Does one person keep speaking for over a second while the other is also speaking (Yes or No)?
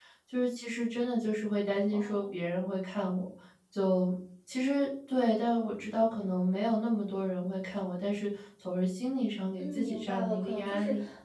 Yes